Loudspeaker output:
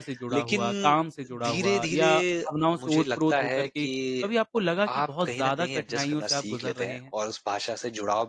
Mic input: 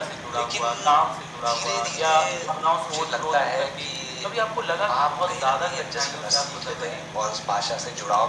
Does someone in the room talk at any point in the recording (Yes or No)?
No